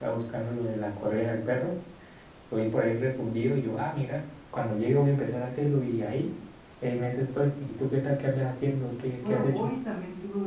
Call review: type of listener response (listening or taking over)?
taking over